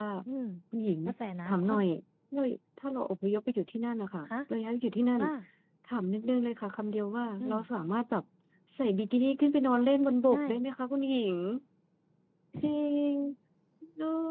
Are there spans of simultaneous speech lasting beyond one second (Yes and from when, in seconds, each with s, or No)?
No